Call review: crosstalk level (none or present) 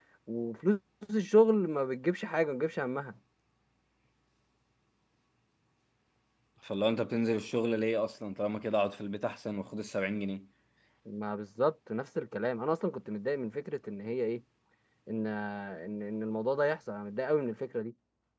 none